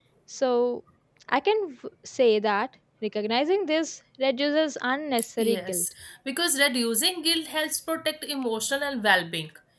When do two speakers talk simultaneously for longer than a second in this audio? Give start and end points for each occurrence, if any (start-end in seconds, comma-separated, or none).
none